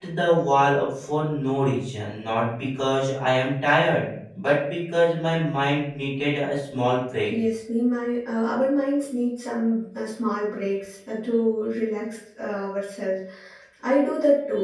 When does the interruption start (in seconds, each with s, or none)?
none